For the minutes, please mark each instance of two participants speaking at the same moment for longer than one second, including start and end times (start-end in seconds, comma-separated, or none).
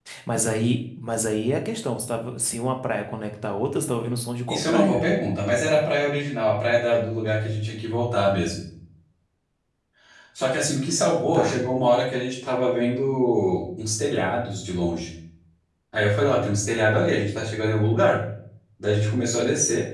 none